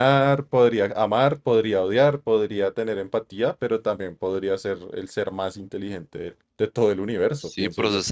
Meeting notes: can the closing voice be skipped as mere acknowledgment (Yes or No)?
No